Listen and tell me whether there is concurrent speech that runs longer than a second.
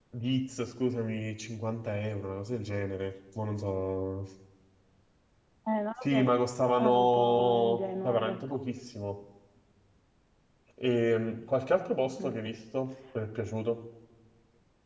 Yes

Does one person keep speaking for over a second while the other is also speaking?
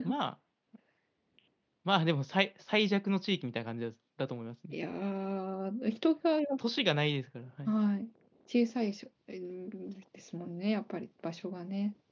No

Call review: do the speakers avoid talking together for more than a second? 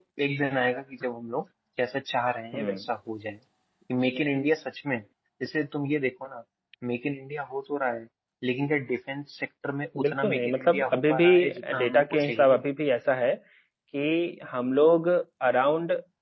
No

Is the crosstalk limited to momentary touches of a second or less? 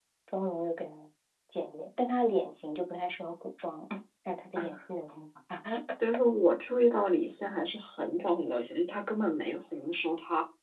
Yes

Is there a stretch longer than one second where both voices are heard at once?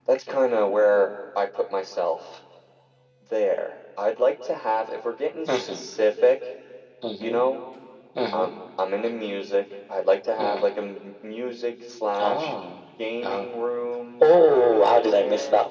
Yes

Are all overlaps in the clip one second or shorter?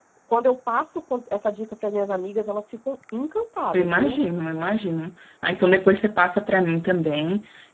Yes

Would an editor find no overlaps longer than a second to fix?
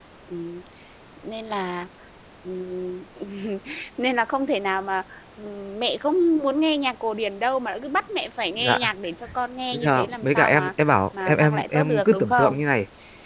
No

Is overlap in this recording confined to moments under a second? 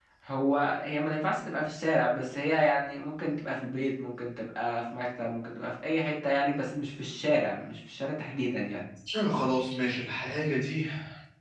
Yes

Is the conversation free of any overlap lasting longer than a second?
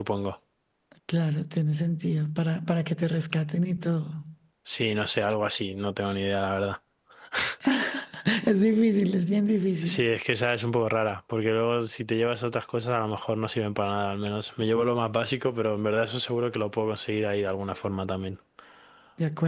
Yes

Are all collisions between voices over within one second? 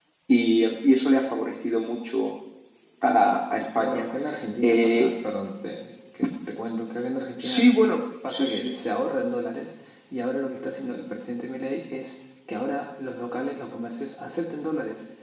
Yes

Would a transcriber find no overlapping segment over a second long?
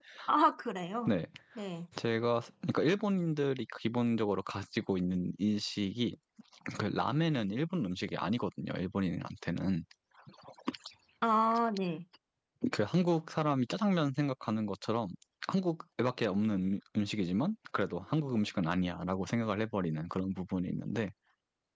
Yes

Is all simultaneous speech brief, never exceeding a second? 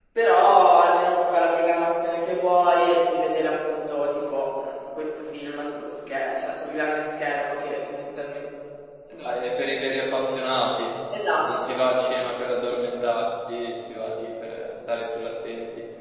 Yes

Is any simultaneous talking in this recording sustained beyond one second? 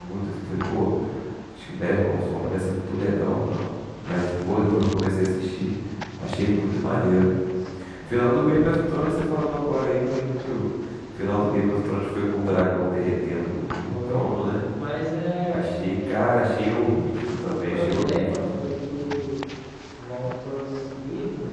Yes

